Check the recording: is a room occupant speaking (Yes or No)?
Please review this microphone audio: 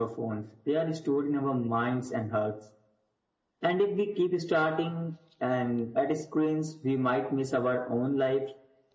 No